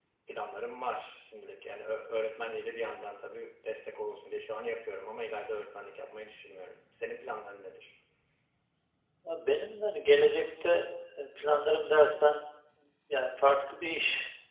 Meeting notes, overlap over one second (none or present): none